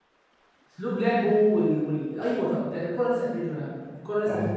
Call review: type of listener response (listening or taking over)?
taking over